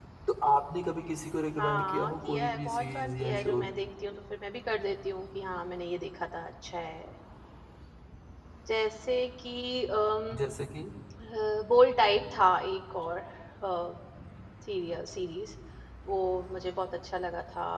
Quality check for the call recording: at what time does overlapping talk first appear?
1.6 s

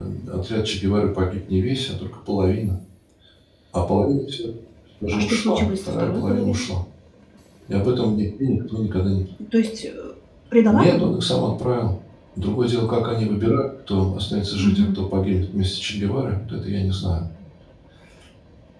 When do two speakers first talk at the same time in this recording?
5.1 s

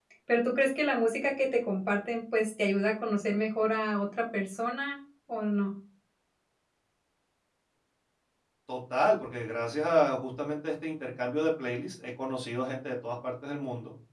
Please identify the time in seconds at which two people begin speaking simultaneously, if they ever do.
none

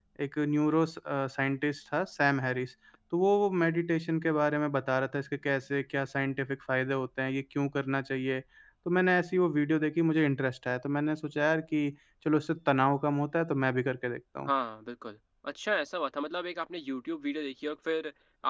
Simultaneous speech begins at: none

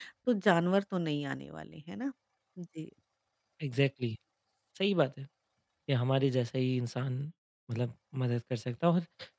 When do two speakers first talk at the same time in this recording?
none

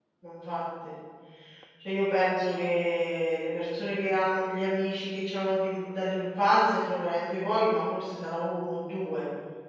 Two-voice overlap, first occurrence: none

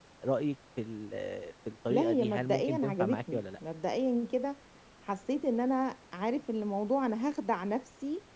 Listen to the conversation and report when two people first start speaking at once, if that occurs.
1.9 s

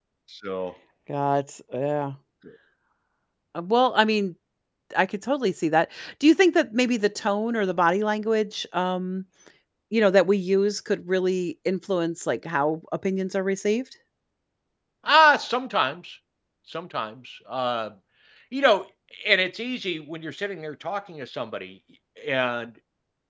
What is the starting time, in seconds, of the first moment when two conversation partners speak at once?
none

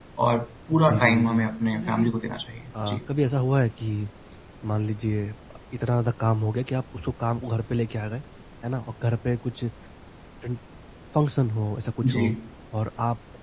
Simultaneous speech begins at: 0.9 s

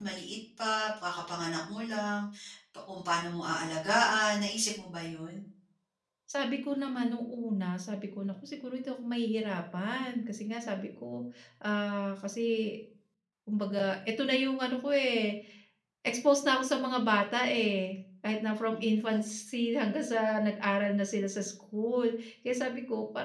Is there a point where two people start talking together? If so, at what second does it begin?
none

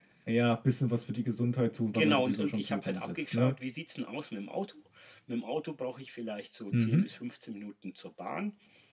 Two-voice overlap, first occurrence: 1.9 s

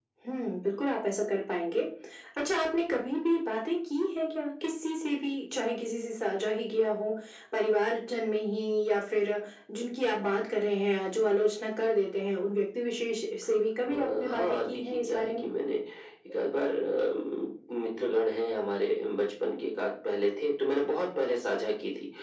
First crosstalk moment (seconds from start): 13.8 s

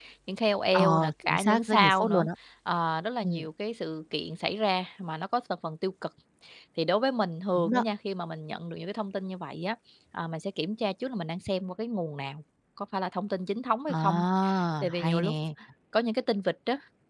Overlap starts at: 0.7 s

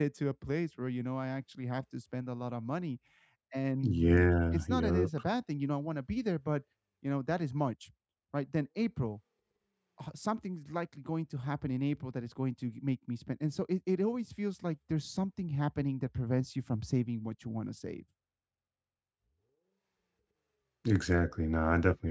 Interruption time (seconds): 3.8 s

